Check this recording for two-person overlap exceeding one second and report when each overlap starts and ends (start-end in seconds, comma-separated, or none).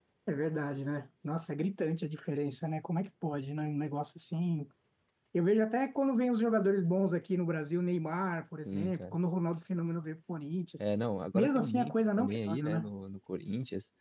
11.3-12.9